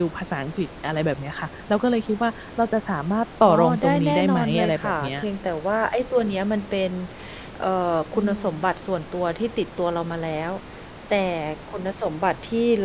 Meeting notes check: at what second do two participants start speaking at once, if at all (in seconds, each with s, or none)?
3.5 s